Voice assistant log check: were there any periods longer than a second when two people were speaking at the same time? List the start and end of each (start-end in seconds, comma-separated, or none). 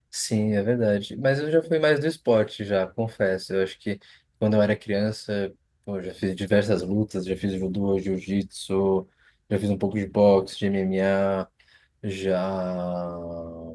none